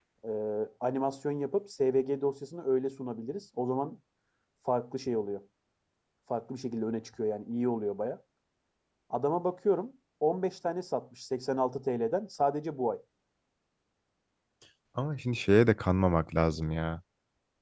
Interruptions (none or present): none